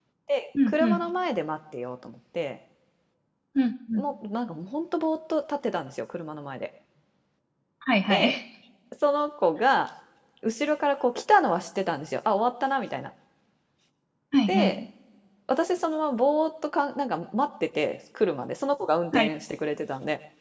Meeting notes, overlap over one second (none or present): none